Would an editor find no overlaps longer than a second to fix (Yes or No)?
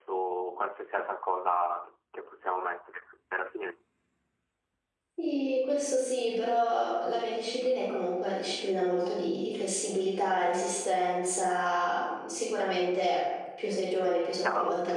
Yes